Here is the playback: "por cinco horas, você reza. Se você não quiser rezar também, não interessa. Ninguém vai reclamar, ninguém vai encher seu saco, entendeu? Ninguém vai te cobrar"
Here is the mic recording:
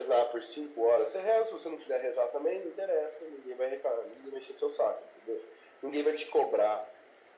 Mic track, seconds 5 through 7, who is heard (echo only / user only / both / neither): echo only